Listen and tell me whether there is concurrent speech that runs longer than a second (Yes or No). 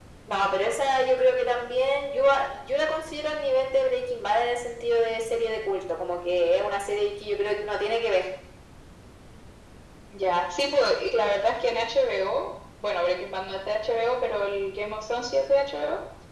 No